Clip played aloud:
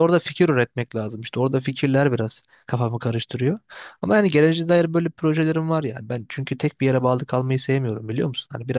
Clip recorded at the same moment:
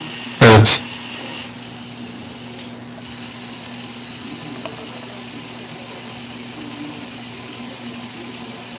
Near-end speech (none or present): present